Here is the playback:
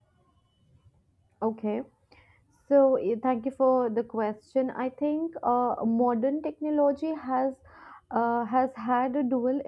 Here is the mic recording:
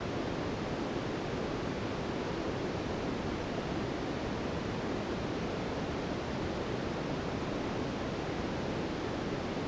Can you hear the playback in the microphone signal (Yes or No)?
No